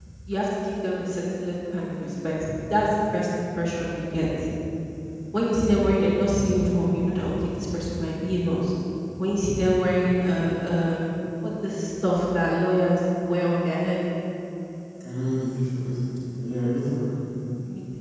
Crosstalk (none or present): none